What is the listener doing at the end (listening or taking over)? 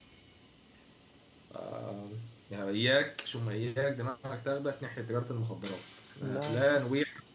listening